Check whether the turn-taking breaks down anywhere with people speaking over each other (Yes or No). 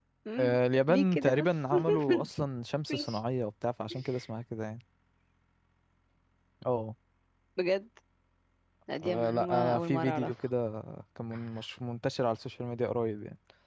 Yes